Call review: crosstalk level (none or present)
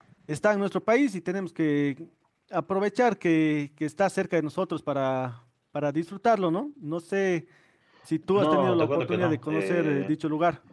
present